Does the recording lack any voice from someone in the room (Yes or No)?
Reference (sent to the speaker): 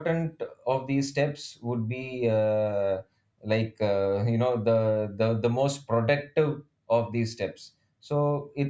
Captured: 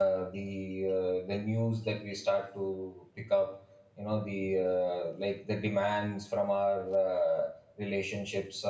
No